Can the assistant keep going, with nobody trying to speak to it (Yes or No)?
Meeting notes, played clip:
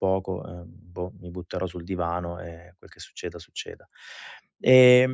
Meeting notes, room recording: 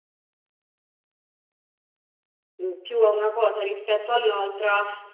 No